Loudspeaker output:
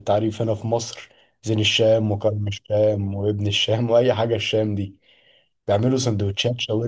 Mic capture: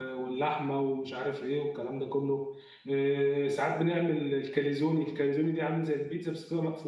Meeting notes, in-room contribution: present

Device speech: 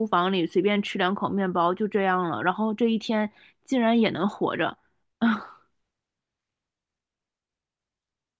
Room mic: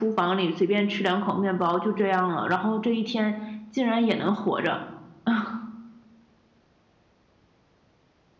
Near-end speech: none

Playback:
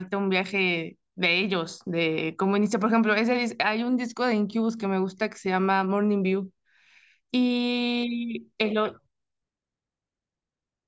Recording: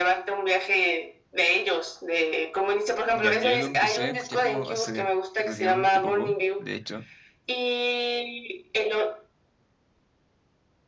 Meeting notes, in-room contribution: present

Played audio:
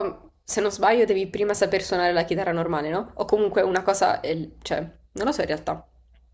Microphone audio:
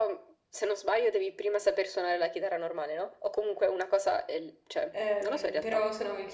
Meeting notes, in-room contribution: present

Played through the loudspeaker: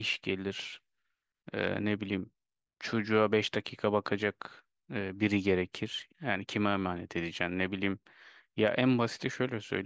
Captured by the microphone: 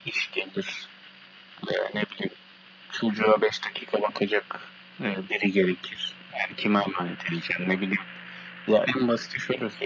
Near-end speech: none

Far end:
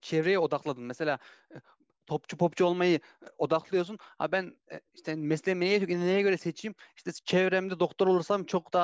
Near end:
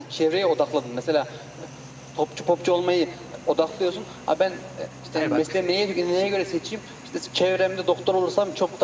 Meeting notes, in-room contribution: present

